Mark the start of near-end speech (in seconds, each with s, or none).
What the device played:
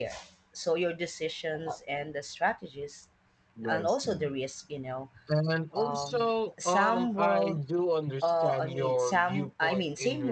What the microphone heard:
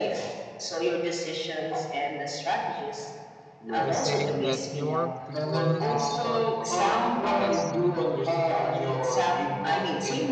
3.8 s